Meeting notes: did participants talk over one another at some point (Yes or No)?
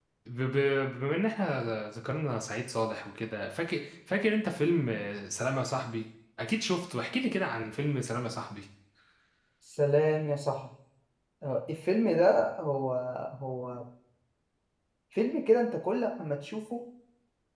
No